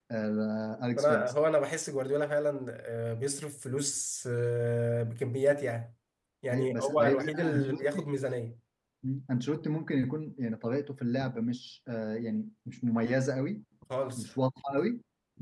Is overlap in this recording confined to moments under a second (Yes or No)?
No